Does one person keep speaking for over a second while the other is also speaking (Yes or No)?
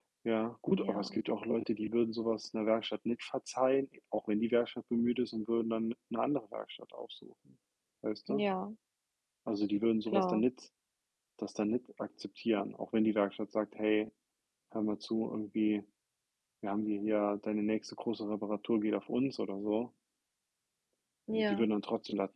No